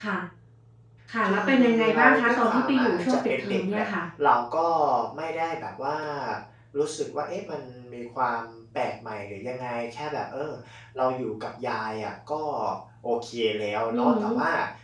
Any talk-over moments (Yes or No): Yes